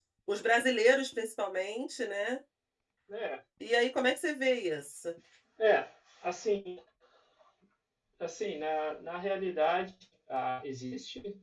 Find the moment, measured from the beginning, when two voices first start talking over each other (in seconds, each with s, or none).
none